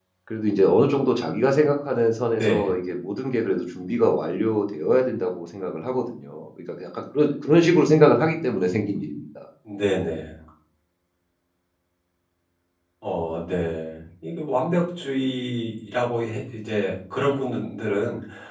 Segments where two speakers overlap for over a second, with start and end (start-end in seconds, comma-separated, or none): none